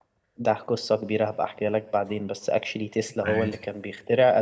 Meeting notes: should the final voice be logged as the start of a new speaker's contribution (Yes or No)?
No